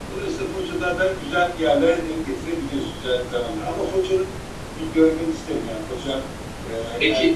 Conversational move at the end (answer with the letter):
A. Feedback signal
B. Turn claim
A